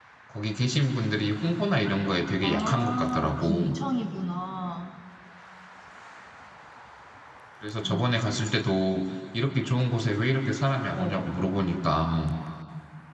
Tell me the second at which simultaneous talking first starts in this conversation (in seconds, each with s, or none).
2.4 s